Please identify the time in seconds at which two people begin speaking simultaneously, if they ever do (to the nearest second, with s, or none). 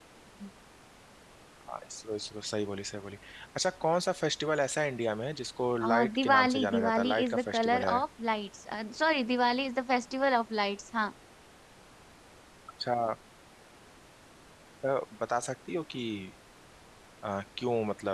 6 s